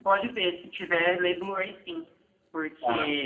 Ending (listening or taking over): listening